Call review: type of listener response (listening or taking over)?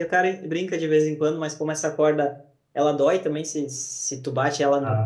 listening